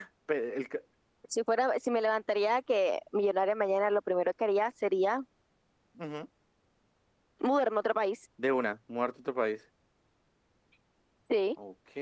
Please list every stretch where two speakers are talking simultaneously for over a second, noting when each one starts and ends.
none

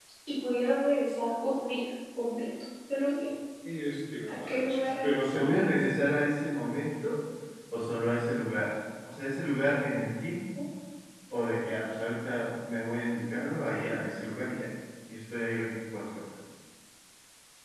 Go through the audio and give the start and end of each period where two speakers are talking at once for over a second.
4.3-5.8

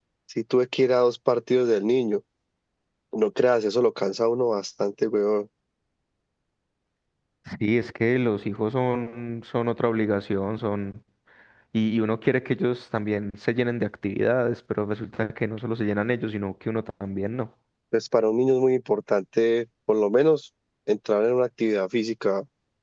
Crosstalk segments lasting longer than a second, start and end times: none

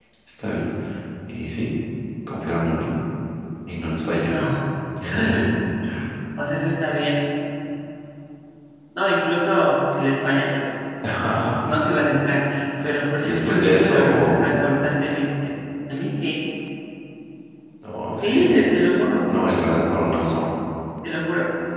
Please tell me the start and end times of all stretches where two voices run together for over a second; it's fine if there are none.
13.2-14.6

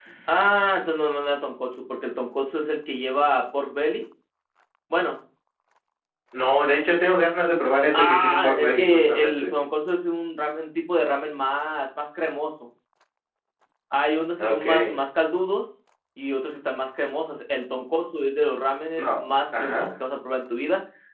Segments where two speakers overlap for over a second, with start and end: 7.9-9.5

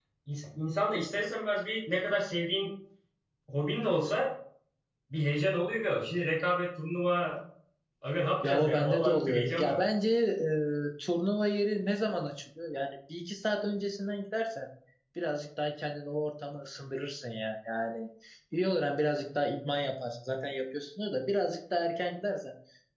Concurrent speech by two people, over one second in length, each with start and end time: 8.4-9.8

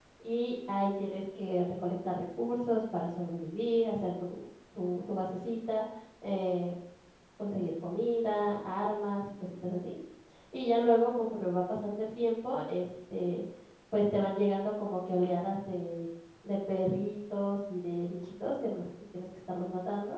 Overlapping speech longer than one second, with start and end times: none

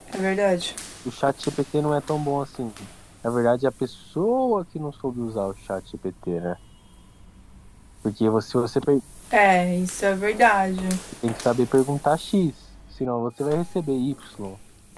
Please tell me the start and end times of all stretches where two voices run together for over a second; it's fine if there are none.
none

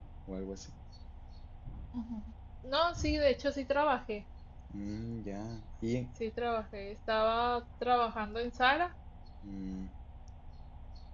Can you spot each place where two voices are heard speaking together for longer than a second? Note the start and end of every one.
none

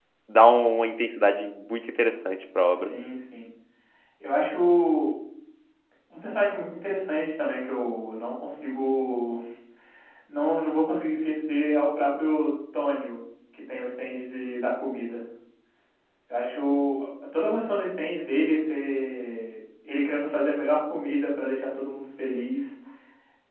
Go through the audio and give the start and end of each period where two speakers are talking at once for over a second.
none

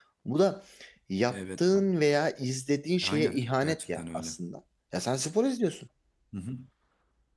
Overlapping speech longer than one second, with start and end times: 3.0-4.4

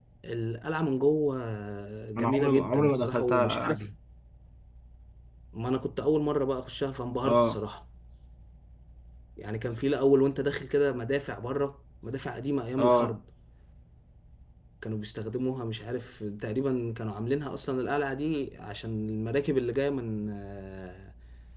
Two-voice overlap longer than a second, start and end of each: 2.2-3.9

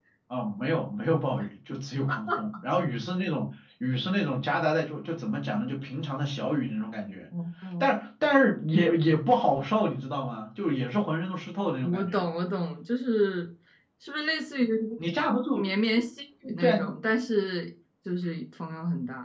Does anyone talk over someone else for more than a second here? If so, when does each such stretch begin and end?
none

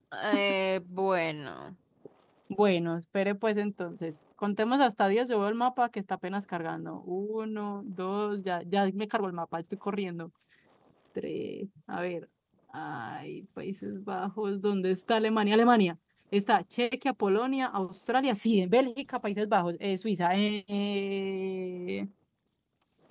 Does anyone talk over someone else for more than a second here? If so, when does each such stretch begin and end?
none

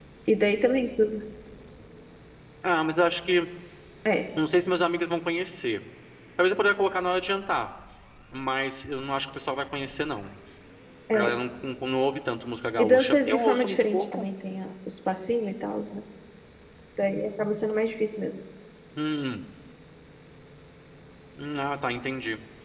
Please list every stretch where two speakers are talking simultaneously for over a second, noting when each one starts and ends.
12.8-14.2

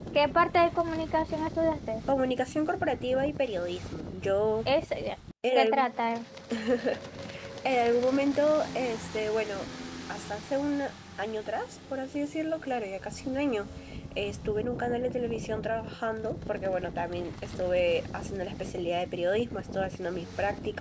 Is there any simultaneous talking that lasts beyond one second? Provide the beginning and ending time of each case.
none

